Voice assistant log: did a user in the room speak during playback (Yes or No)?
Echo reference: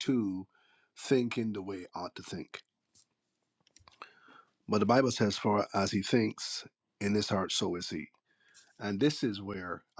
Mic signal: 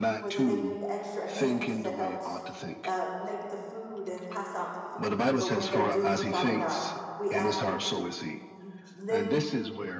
Yes